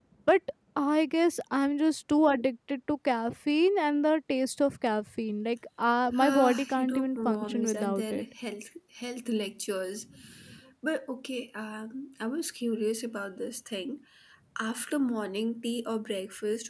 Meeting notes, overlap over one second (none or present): present